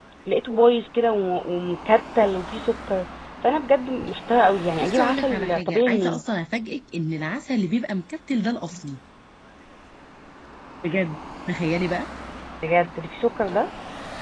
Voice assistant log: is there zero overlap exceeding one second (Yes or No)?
No